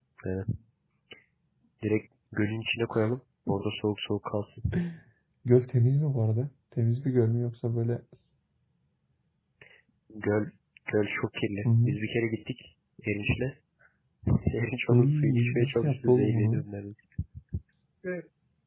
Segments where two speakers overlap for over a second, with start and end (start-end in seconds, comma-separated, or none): 14.9-16.6